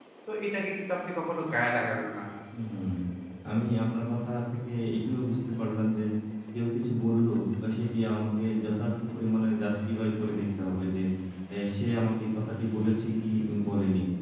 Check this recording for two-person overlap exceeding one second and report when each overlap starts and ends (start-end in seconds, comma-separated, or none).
none